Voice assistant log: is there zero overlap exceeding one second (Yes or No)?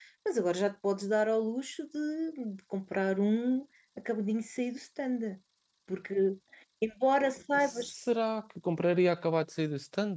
Yes